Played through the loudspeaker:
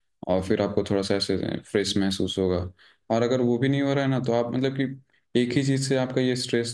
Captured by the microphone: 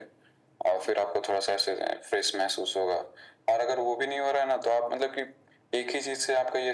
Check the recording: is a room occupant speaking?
No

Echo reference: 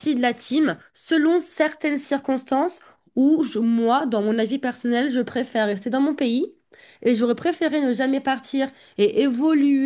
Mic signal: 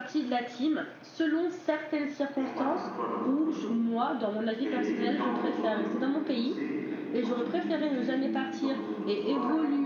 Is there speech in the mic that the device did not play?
Yes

